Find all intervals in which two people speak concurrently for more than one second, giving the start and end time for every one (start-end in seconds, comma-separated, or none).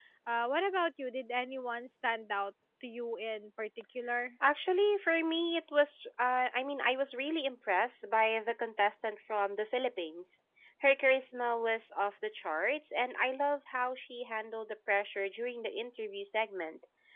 none